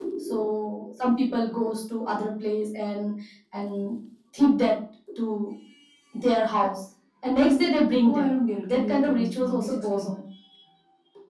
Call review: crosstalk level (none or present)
present